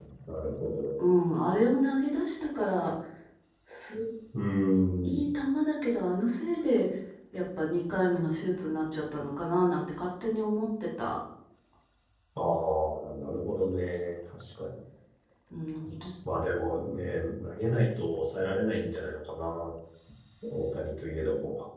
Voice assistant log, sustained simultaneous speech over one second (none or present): none